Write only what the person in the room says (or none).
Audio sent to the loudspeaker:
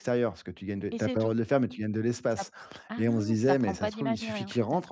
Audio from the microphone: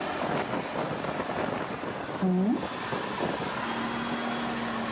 Mmh mh.